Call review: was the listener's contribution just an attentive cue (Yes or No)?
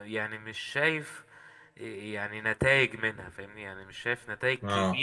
Yes